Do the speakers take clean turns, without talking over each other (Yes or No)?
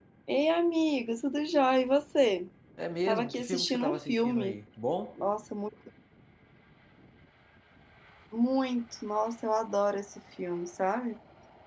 No